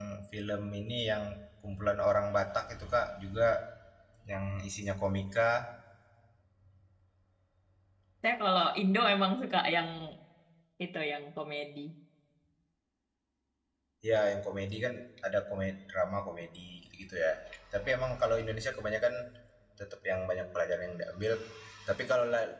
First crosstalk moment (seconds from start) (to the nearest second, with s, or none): none